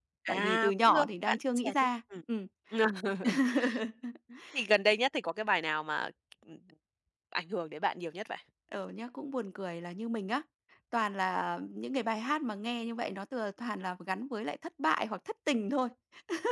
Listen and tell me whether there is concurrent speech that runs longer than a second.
Yes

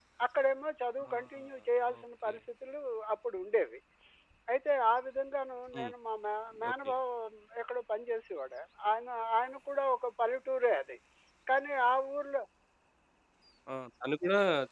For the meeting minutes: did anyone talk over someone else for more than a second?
No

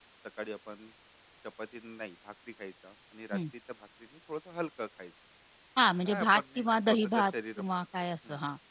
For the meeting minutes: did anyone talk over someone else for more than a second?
Yes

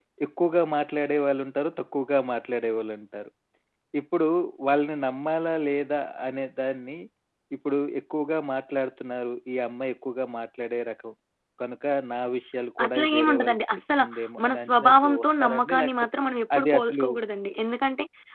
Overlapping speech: Yes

